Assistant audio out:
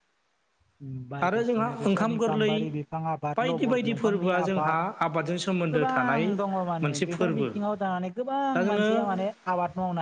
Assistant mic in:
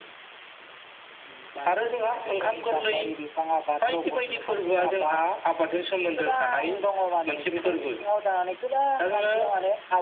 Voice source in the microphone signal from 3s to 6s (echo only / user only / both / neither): echo only